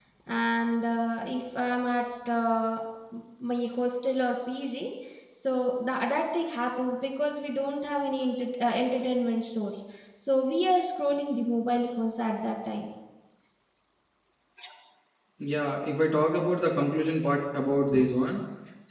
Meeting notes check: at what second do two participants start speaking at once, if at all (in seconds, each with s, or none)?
none